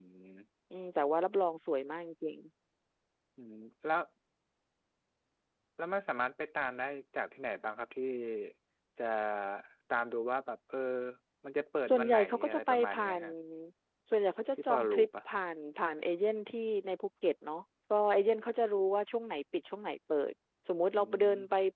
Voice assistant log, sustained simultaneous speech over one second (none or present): present